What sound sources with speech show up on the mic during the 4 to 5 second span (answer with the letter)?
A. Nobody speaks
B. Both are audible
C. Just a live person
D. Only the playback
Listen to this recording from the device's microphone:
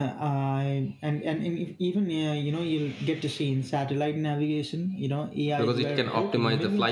D